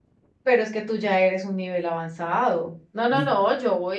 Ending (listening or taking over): listening